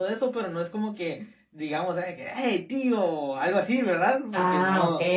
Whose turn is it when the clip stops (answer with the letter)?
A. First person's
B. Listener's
B